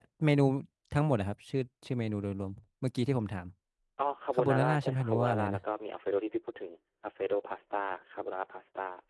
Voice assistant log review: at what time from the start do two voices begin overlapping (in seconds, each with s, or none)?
4.4 s